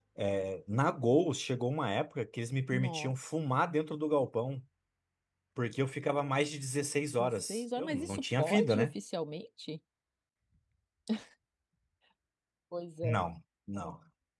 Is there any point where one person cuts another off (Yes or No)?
Yes